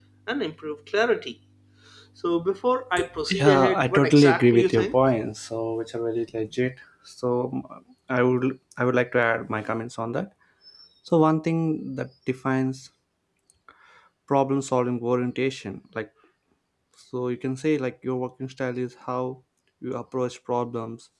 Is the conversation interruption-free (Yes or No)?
No